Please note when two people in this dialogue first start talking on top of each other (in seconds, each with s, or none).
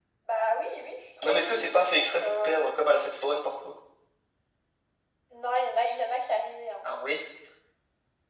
1.2 s